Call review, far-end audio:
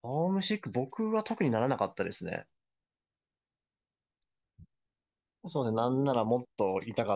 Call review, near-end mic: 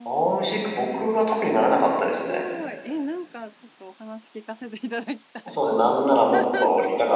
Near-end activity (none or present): present